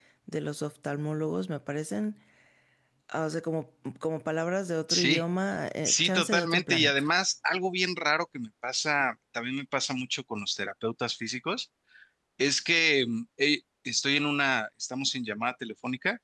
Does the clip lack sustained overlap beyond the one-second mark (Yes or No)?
No